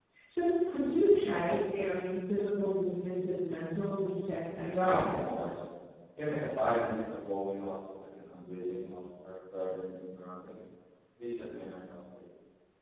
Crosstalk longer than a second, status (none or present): none